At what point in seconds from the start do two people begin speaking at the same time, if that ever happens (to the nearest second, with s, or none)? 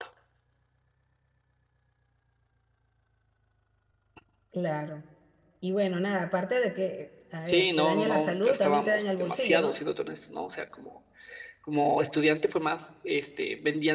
7 s